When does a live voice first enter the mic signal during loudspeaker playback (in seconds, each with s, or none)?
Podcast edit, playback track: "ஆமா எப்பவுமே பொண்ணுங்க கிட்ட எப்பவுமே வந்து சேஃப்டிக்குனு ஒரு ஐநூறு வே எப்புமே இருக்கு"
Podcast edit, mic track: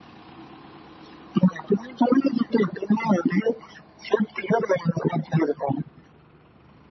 none